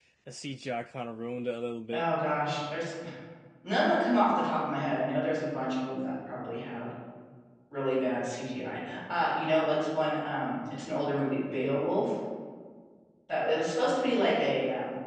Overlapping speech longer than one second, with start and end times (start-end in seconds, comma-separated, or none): none